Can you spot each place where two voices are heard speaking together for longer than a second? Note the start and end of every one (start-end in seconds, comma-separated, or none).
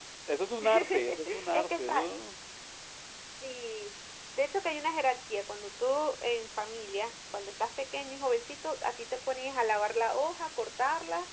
0.6-2.1